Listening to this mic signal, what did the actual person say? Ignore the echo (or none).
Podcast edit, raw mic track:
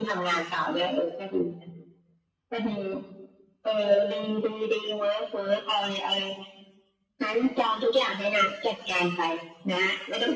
none